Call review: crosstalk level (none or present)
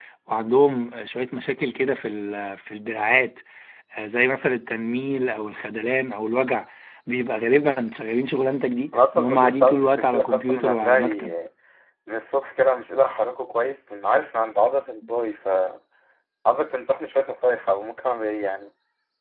present